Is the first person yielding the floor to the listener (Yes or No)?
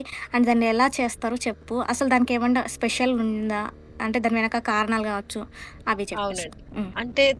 Yes